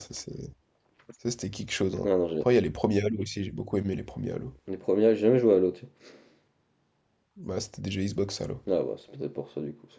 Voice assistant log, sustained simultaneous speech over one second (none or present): none